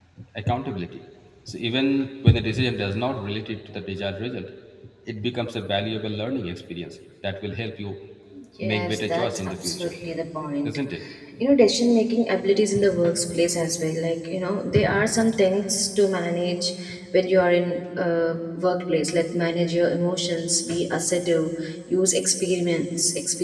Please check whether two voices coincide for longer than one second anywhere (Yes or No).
Yes